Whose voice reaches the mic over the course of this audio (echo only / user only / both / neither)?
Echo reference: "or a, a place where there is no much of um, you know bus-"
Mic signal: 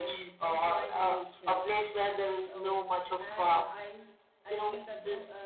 both